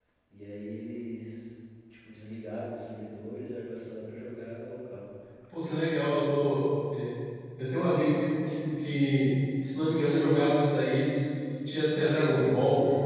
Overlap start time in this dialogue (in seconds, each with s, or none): none